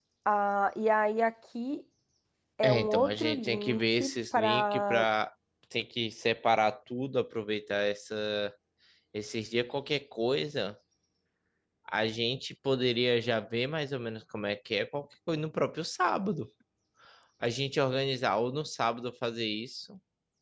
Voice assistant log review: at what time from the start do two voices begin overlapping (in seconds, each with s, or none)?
2.6 s